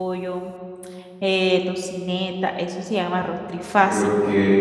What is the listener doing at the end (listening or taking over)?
taking over